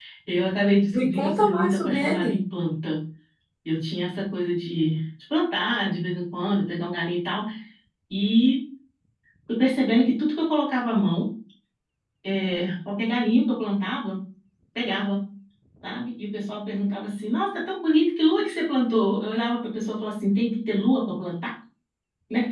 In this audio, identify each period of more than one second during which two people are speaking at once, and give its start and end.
0.9-2.4

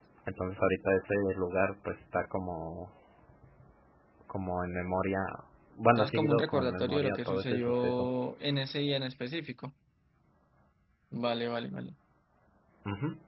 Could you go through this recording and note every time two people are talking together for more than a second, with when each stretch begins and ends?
6.0-8.1

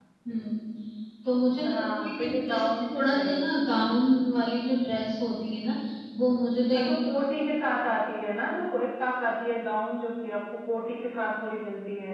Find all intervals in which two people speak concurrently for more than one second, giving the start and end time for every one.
1.7-3.3

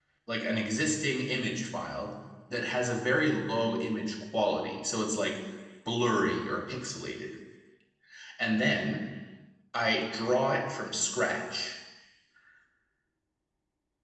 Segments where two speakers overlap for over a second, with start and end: none

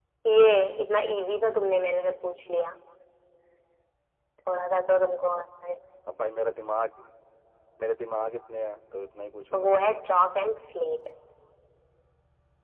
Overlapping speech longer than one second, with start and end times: none

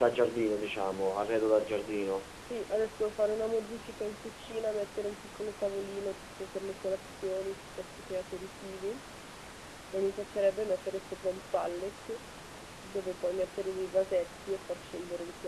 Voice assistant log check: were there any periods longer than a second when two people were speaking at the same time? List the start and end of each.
none

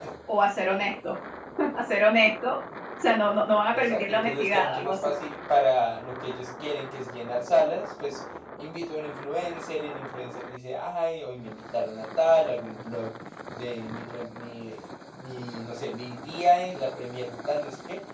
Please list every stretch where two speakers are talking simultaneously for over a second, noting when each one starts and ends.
3.7-5.0

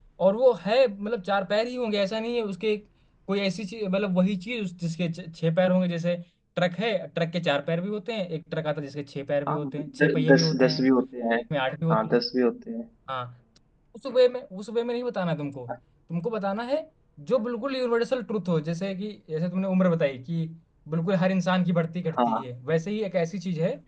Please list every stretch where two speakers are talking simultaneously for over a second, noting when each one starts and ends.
9.5-10.9

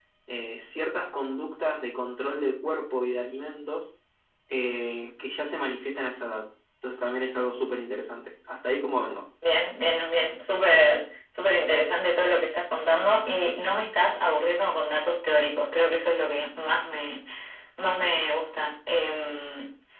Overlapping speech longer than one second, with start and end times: none

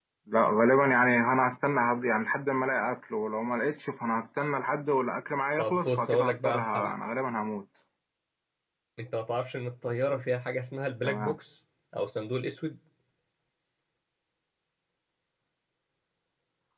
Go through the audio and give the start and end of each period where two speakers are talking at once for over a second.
5.6-7.0

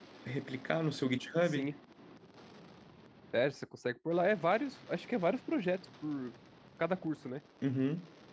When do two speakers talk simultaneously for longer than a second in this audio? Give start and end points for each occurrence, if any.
none

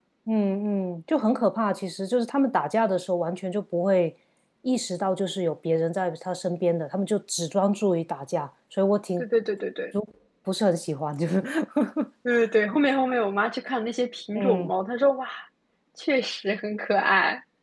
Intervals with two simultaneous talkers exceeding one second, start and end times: none

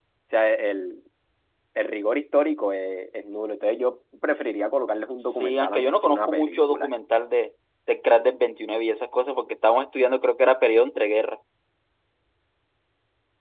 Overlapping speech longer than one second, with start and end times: 5.2-6.9

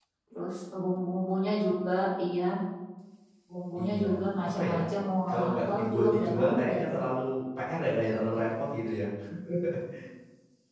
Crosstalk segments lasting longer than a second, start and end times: 5.3-6.8

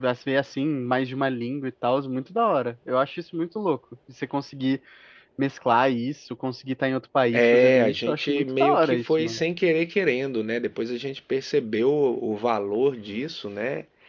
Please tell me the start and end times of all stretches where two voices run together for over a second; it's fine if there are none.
7.3-9.4

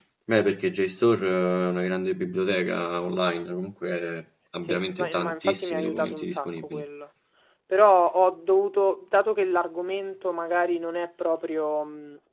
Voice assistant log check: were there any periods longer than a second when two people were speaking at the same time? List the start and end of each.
4.7-6.8

